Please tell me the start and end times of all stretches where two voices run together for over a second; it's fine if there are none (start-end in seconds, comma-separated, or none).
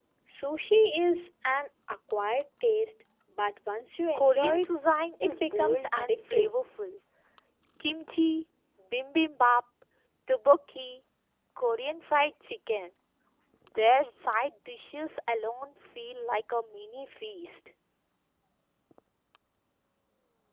5.2-6.5